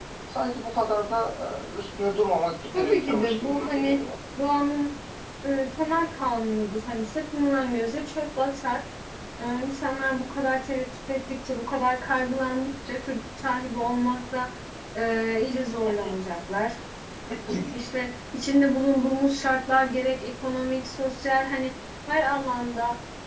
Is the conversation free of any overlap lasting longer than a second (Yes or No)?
No